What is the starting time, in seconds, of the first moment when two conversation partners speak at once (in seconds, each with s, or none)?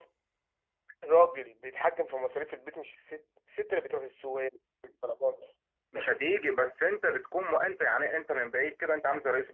none